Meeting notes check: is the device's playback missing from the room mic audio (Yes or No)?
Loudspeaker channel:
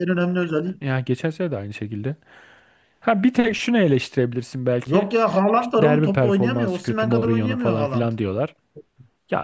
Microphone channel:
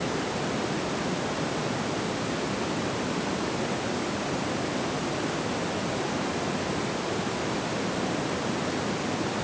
Yes